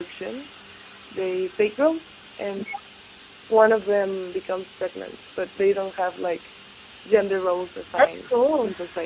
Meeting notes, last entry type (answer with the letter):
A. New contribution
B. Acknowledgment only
B